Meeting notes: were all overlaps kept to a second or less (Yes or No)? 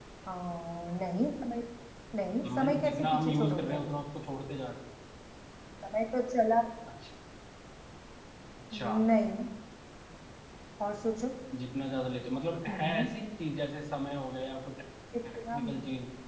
No